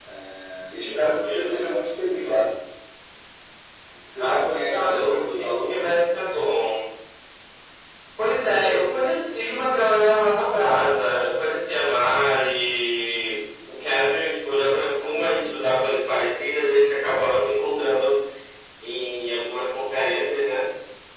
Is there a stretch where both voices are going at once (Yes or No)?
Yes